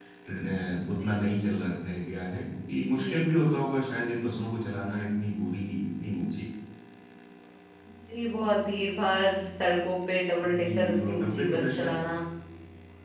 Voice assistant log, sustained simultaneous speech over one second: present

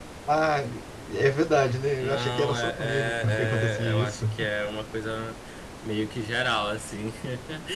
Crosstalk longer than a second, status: present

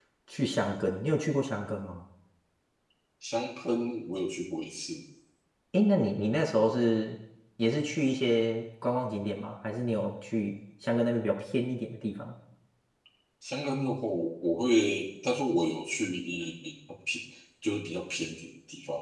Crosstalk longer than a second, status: none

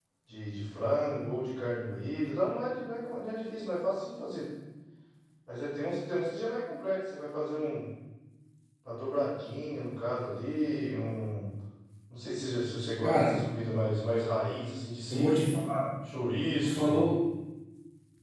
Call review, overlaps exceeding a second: none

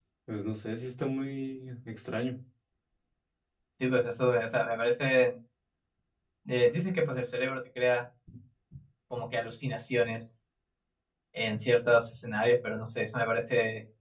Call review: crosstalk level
none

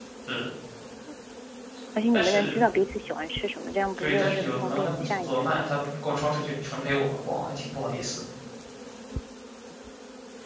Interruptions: present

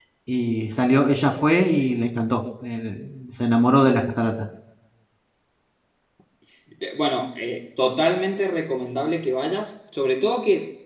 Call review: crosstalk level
none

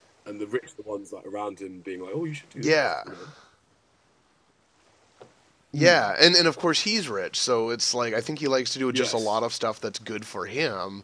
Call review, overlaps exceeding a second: none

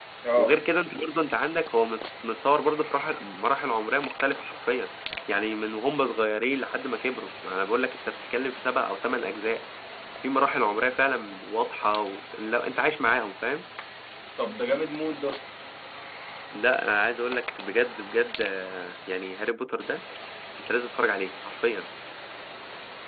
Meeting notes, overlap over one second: none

